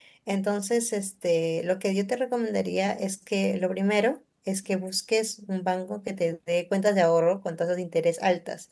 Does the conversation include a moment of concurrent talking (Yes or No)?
No